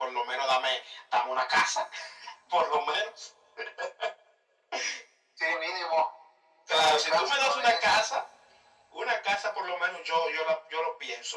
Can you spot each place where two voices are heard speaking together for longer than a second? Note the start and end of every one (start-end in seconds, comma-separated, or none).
6.7-8.0